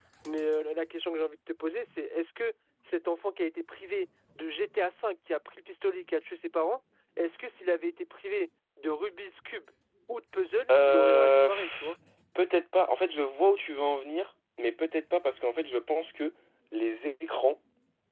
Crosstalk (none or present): present